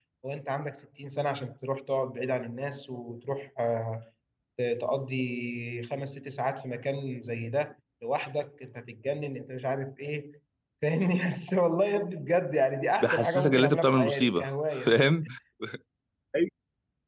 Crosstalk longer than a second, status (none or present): present